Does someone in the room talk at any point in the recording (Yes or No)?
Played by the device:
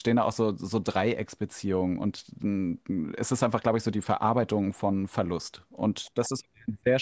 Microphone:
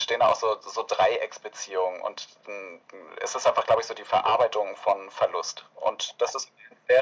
No